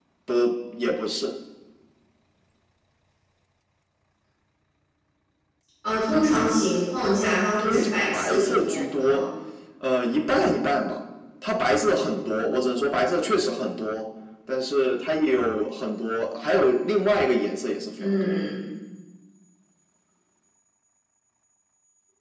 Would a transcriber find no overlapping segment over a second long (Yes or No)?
No